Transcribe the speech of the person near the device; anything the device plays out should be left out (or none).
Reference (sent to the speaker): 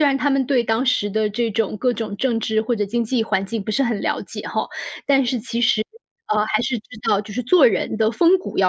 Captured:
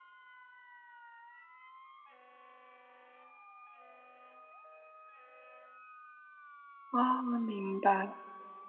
啊，明白，